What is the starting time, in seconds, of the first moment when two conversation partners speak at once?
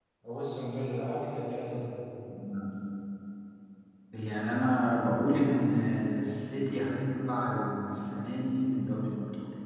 none

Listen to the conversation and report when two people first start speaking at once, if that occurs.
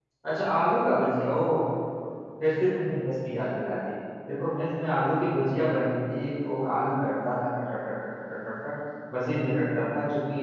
none

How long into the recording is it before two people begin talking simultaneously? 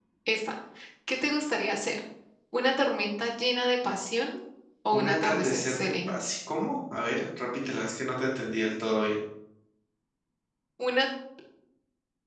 5 s

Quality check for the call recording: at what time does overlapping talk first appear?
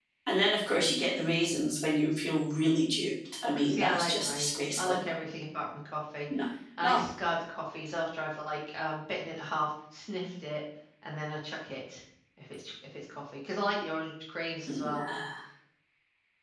4 s

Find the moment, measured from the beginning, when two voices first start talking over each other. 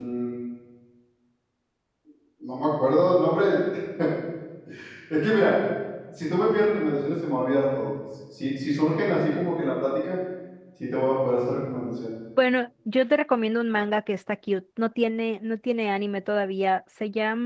none

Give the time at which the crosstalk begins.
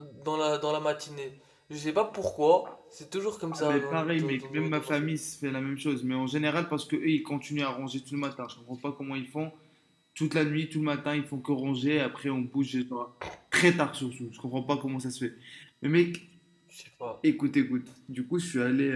4 s

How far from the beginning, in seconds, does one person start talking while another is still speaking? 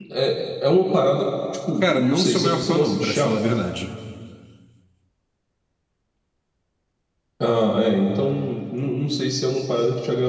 2 s

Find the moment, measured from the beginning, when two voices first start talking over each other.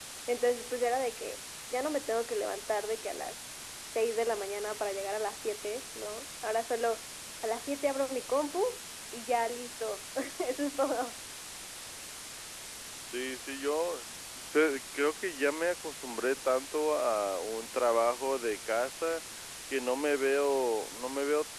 none

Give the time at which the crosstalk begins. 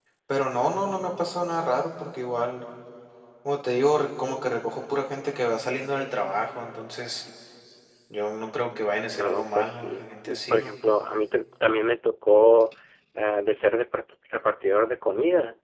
9 s

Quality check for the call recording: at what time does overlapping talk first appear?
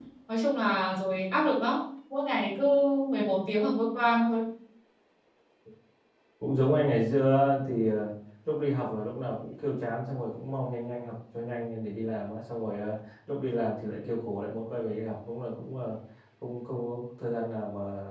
none

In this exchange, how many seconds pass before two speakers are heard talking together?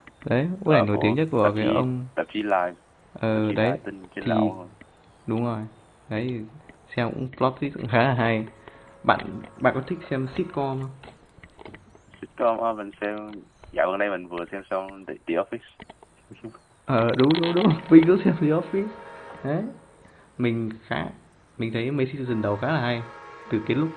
1 s

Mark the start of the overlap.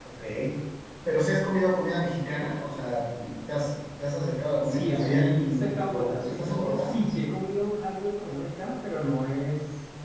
5 s

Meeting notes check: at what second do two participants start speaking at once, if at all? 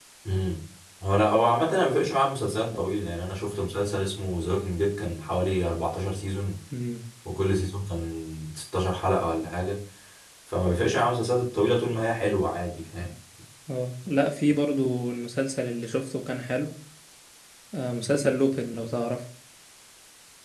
none

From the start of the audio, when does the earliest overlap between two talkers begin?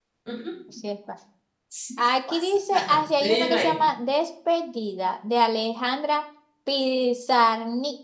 2 s

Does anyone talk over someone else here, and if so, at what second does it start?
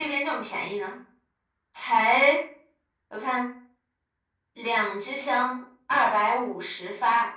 none

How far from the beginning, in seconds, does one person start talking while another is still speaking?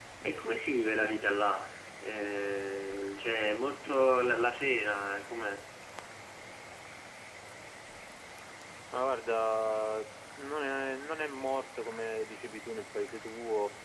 none

